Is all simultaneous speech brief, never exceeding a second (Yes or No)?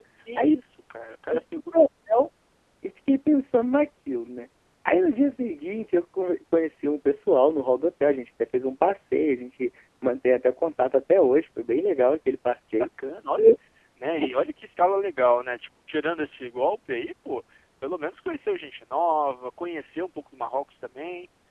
Yes